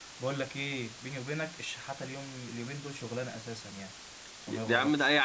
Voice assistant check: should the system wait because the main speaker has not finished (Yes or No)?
No